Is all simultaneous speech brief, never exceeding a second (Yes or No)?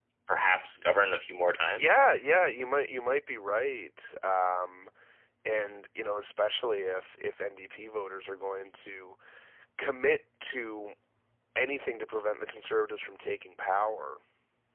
Yes